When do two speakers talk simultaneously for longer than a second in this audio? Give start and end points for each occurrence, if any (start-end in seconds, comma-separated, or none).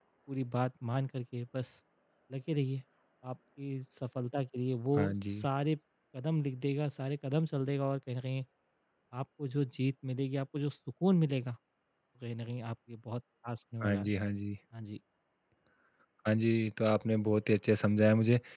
none